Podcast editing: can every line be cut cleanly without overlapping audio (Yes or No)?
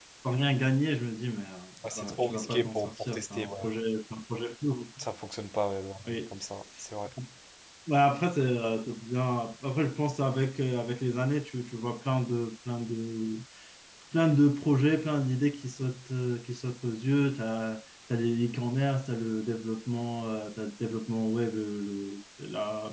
No